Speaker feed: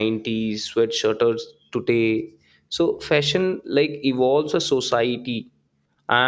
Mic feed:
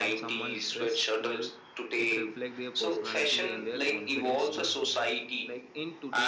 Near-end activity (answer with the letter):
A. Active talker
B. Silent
A